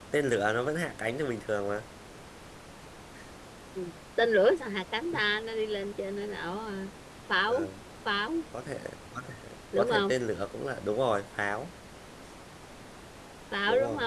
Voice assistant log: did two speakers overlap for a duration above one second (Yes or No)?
No